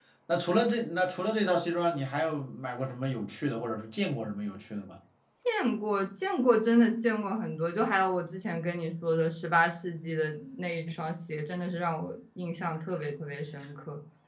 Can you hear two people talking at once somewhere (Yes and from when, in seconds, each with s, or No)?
No